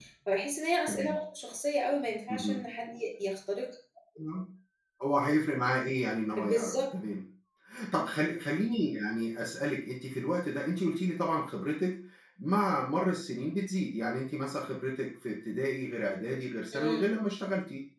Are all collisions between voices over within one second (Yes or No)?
Yes